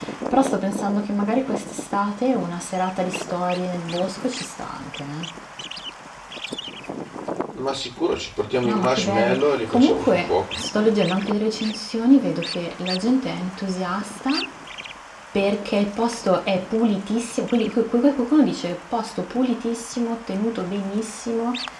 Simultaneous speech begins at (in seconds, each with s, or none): 8.6 s